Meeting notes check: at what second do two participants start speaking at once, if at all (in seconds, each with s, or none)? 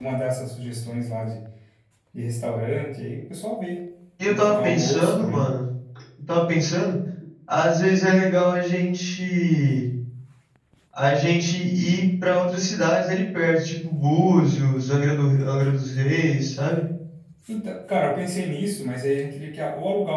4.2 s